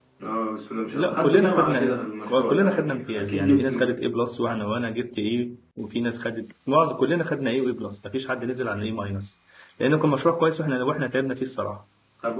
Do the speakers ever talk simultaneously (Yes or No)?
Yes